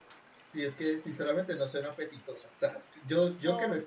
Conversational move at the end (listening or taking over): listening